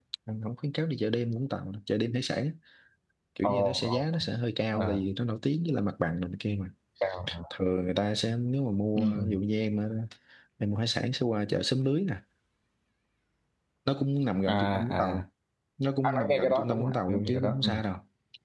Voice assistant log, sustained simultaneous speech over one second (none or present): present